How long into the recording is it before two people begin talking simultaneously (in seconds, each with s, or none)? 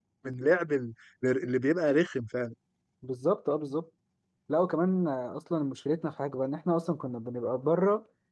none